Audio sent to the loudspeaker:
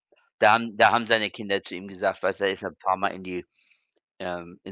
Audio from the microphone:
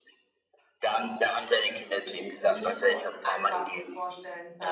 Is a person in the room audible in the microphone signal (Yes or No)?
Yes